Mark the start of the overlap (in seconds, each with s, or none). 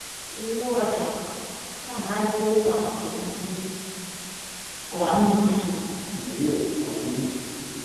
none